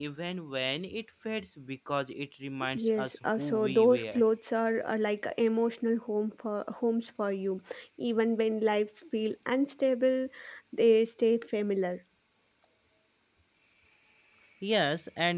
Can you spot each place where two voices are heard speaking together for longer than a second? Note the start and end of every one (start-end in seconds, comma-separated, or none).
2.8-4.2